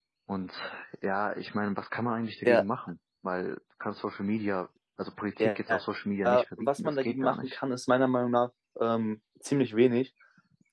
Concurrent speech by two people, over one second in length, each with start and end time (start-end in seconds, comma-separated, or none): 6.2-7.6